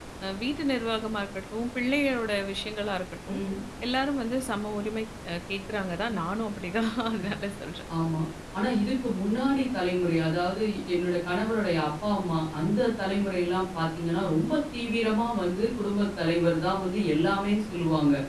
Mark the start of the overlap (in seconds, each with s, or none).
none